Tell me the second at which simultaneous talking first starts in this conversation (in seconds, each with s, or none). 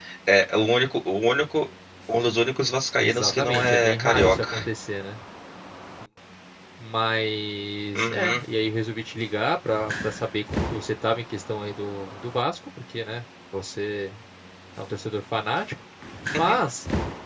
3.0 s